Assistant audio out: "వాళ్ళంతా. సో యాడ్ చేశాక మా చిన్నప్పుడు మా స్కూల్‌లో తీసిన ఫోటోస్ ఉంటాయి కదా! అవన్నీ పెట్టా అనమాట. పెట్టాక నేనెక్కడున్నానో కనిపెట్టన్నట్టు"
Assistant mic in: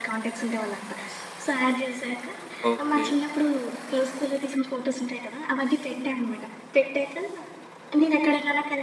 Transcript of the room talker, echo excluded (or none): ఓకే.